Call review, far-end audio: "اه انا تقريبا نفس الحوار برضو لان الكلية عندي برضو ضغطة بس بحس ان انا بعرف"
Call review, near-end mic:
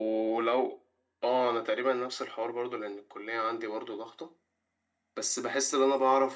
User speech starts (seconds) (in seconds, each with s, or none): none